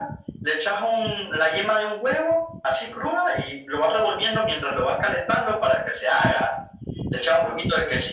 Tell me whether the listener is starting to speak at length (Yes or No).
No